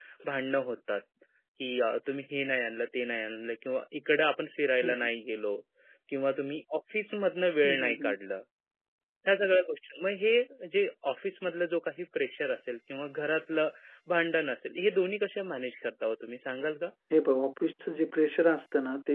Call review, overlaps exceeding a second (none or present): none